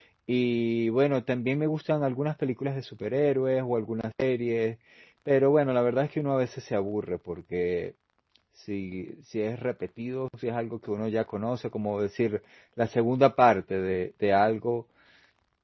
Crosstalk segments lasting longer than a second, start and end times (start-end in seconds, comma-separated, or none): none